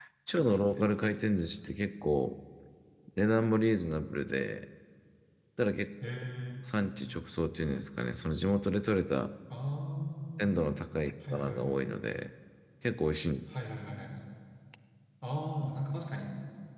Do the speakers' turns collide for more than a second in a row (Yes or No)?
No